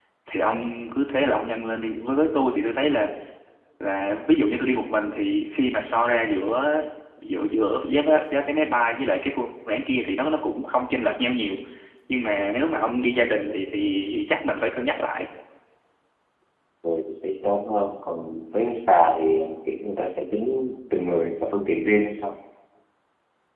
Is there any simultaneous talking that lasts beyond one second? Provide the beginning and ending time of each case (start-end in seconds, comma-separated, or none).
none